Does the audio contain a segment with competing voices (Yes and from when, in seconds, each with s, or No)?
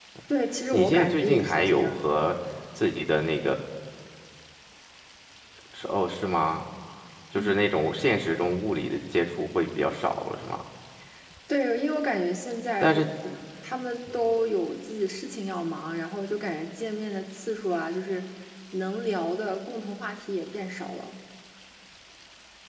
Yes, from 0.7 s